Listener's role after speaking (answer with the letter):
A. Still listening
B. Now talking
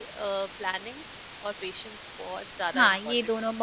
B